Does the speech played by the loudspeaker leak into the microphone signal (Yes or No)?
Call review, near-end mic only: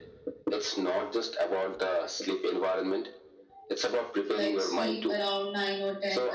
Yes